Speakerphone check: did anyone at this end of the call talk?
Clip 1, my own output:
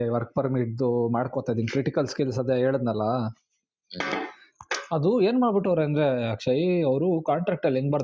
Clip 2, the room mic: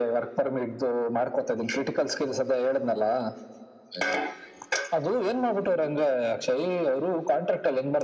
No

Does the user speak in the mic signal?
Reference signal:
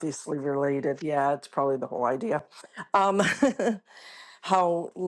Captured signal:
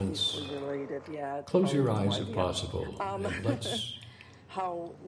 Yes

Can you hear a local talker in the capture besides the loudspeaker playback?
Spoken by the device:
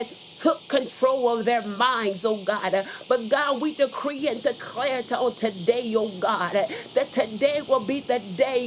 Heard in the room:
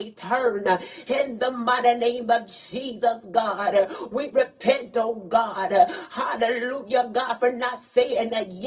Yes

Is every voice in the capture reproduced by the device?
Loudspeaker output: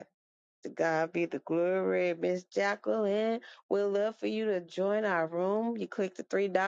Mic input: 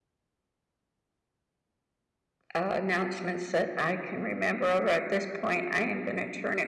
No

